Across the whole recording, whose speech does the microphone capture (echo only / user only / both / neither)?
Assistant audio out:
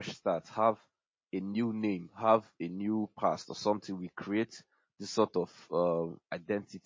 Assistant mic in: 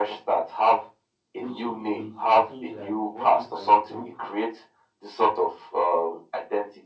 both